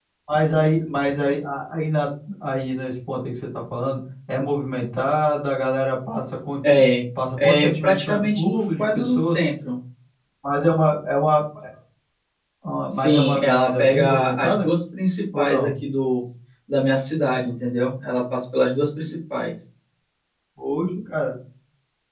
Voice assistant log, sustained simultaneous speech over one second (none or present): present